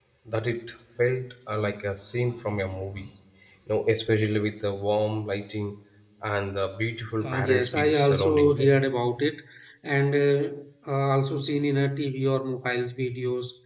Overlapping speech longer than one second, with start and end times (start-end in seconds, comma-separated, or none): 7.2-8.7